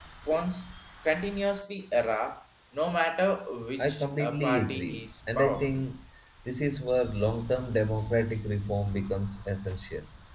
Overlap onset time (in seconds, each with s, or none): 3.8 s